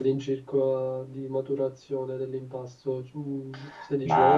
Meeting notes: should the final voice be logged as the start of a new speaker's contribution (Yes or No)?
Yes